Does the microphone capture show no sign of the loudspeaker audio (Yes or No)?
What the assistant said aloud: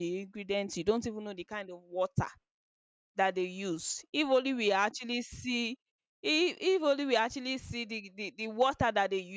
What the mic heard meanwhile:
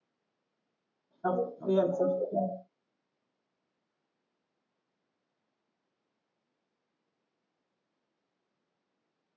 Yes